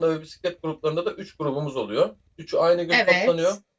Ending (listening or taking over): listening